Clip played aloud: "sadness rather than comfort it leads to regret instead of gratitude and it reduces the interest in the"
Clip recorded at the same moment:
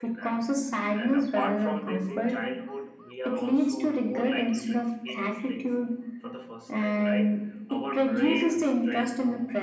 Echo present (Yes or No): Yes